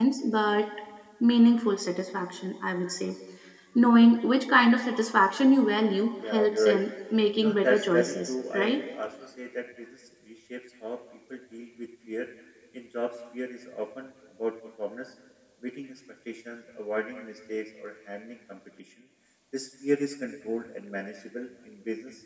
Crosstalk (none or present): present